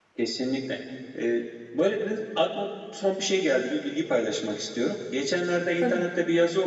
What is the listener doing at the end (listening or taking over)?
listening